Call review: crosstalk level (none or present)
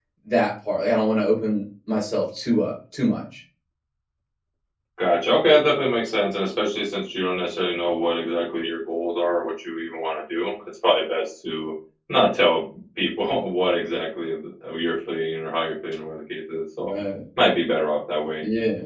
none